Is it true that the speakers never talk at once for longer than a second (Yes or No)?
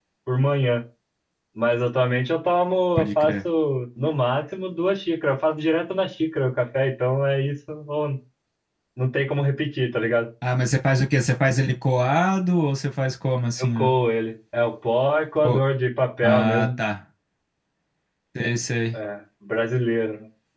Yes